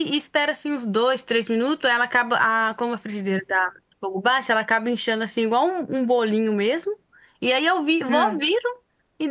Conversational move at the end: listening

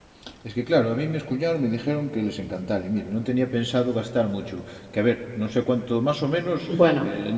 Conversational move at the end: listening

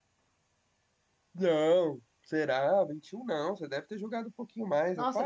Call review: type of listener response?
taking over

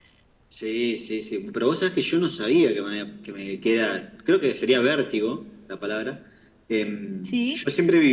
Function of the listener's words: listening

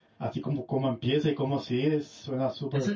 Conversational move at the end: taking over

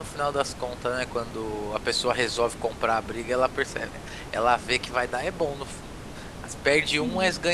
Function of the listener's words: listening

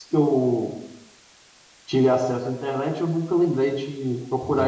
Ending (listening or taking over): taking over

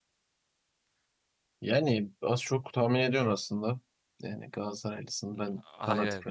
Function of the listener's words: listening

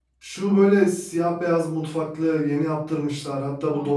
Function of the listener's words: listening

